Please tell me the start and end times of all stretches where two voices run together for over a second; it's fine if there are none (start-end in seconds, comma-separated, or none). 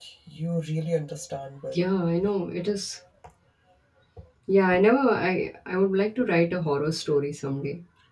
none